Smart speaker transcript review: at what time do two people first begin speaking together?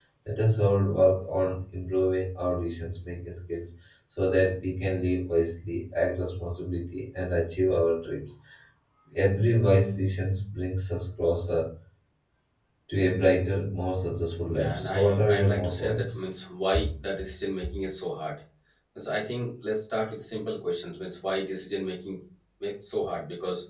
14.5 s

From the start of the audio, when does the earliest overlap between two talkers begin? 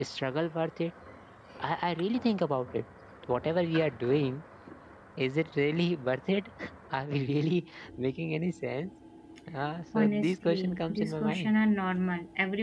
9.9 s

